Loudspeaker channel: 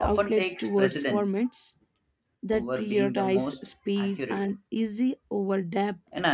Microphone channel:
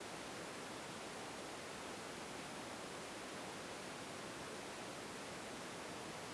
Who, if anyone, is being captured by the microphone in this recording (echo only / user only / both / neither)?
neither